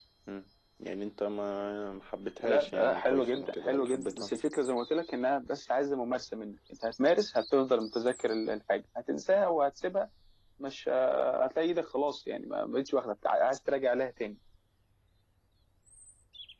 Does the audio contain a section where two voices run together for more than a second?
Yes, from 2.4 s

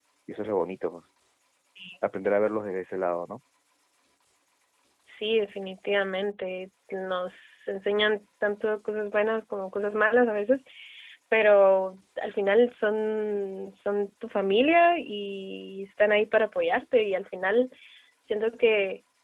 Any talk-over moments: No

